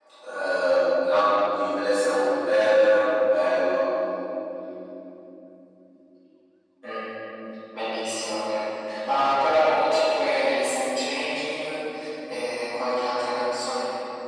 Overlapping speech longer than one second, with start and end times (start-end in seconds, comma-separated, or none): none